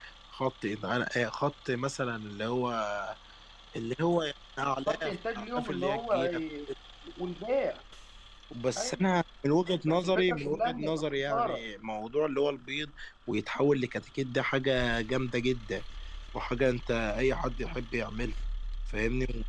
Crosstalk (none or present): present